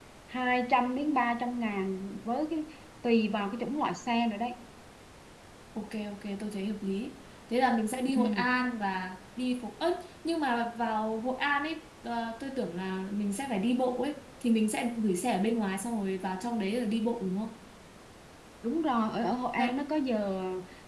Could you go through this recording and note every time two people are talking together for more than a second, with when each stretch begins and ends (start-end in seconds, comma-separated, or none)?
none